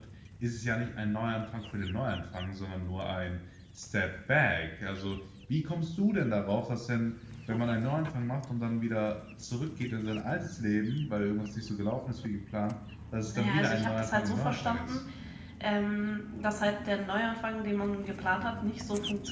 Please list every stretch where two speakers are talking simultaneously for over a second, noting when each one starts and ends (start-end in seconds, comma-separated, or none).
13.2-15.0